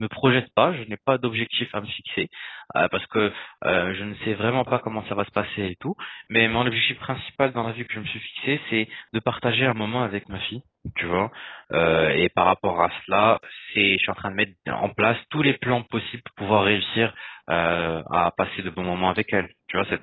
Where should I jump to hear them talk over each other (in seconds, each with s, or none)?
none